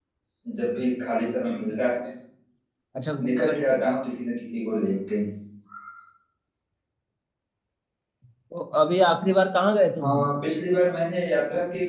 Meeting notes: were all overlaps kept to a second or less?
Yes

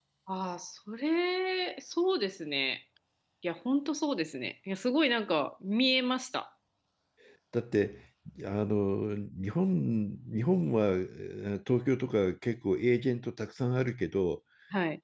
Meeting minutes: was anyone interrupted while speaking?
No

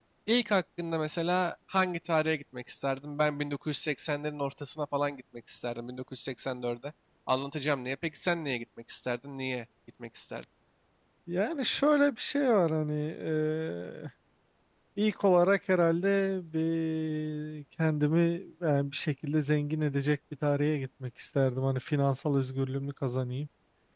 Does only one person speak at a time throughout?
Yes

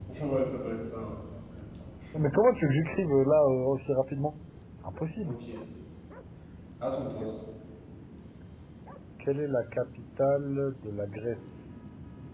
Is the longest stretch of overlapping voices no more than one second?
Yes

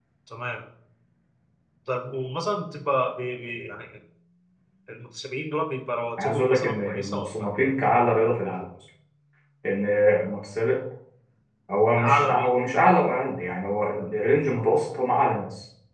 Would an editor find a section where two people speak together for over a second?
Yes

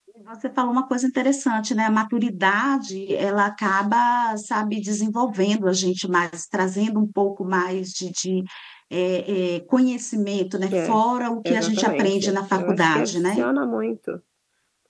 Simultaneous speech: Yes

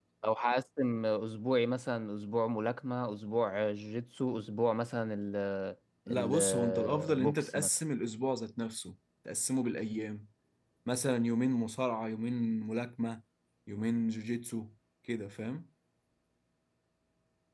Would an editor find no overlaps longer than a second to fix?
No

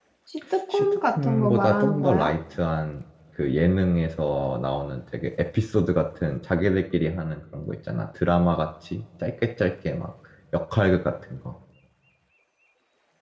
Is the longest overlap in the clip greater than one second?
Yes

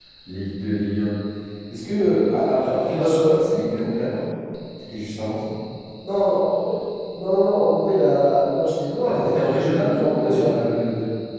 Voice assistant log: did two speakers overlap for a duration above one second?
Yes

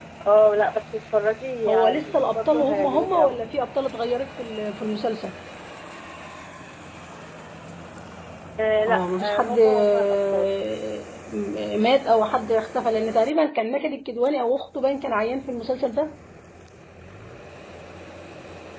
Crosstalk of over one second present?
Yes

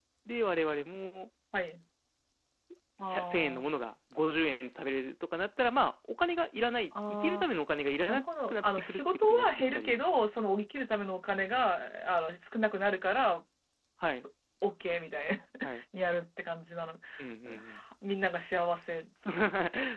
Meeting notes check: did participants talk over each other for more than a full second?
Yes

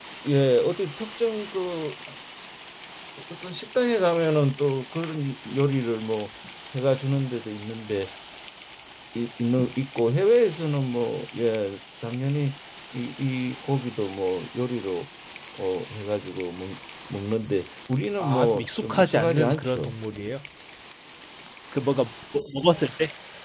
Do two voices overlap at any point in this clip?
Yes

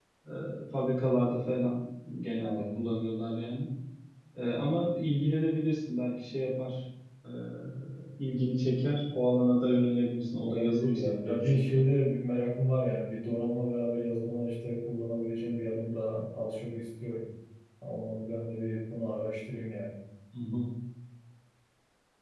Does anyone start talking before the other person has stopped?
Yes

